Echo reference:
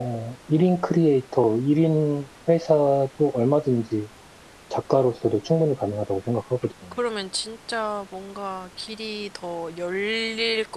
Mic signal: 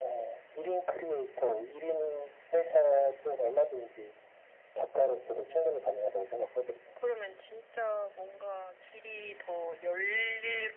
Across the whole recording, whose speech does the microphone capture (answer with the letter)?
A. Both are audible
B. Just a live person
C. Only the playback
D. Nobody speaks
C